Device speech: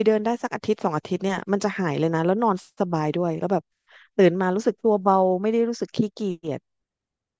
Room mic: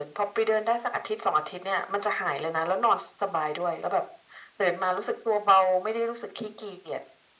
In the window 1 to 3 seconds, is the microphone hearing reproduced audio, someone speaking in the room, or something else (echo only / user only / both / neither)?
echo only